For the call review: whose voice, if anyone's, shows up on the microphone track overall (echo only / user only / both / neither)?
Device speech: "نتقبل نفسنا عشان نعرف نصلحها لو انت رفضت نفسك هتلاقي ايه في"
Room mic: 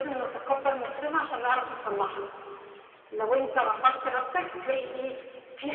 echo only